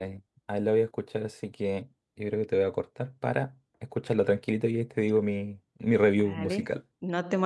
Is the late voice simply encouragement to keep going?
No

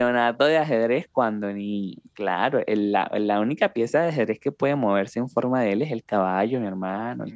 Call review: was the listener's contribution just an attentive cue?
No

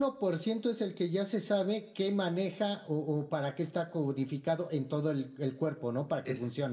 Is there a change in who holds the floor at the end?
Yes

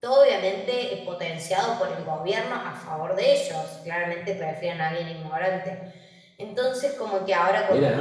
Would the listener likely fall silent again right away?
Yes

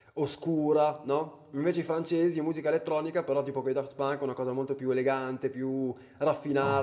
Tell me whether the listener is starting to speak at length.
Yes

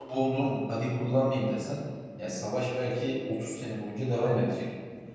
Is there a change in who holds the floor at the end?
No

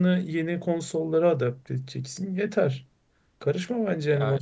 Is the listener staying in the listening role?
No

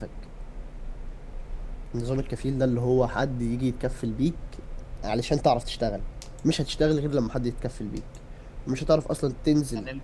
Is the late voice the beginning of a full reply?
No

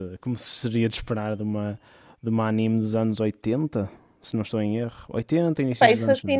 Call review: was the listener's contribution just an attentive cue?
No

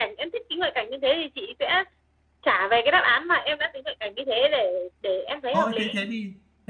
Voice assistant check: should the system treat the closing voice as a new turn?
Yes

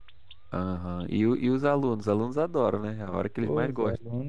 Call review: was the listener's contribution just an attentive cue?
No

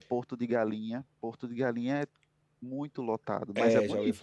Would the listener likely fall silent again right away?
No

